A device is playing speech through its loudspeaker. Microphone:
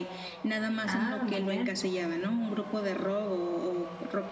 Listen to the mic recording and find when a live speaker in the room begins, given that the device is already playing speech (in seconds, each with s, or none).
0.9 s